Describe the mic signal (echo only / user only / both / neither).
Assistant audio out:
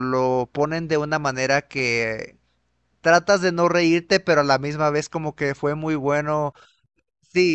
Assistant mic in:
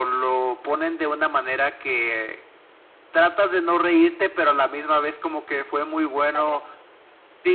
both